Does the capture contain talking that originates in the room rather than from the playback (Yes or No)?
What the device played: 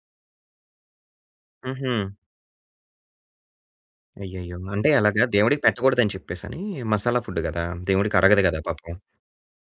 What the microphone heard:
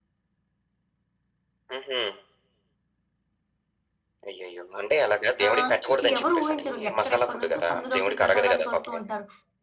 Yes